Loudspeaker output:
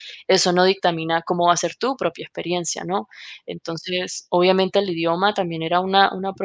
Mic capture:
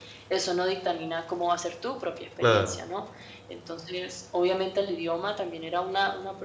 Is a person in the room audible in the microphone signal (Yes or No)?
Yes